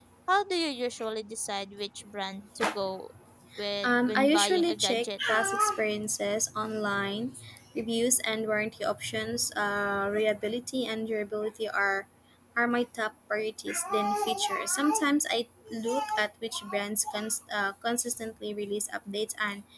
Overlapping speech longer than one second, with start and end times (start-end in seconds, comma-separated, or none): 3.8-5.1